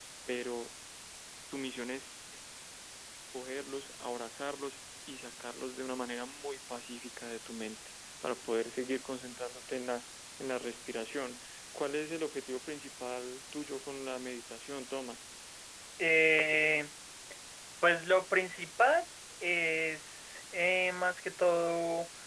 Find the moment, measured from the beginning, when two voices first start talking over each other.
none

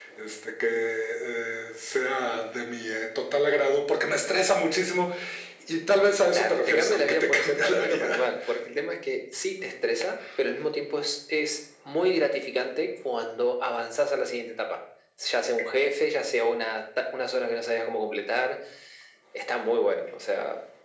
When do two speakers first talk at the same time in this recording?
6.3 s

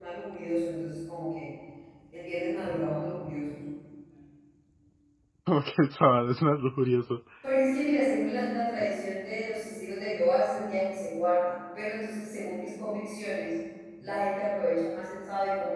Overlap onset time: none

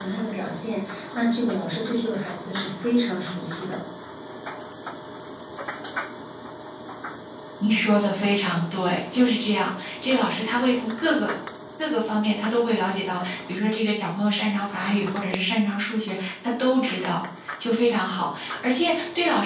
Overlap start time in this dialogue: none

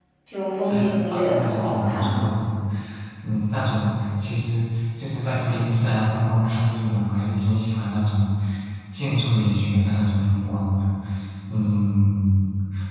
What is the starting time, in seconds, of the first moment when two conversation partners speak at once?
0.7 s

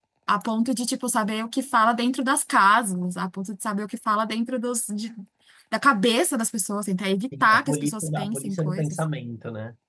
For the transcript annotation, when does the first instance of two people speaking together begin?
7.3 s

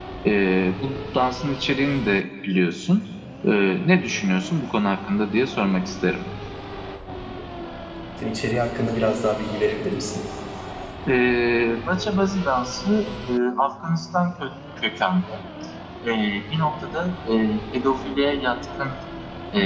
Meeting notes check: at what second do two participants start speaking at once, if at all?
none

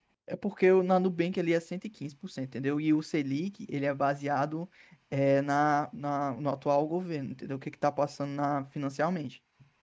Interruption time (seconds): none

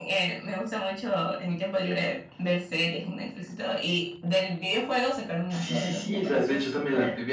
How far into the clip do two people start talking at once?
5.5 s

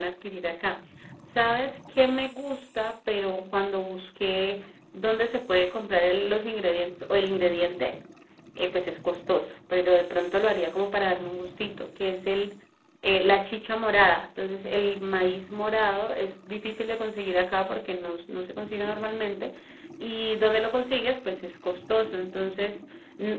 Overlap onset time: none

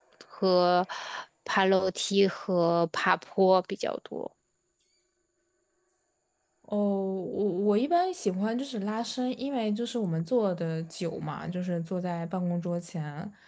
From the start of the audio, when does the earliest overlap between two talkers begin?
none

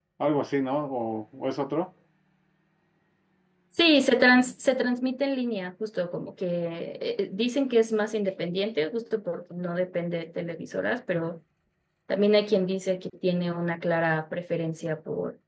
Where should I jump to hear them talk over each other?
none

